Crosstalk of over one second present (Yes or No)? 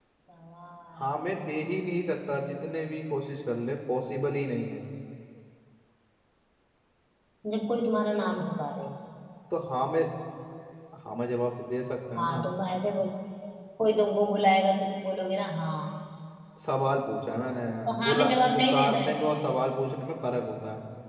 Yes